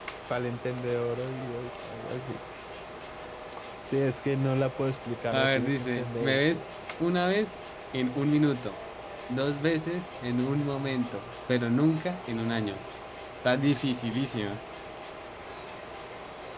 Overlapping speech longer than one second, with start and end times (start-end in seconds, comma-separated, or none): 5.3-6.6